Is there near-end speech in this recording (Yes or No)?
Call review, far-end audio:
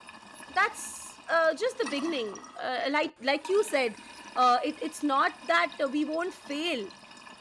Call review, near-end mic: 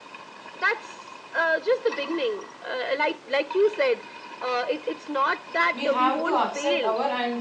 Yes